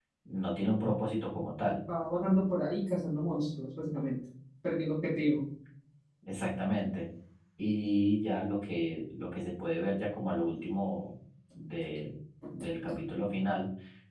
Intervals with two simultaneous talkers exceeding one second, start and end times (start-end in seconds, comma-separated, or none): none